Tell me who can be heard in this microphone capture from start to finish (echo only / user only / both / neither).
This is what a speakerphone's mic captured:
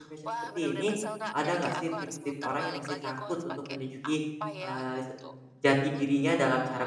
both